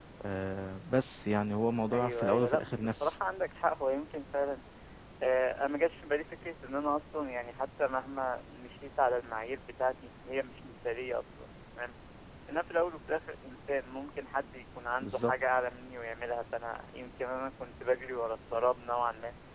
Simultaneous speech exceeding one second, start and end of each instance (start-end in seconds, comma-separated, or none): 1.9-3.1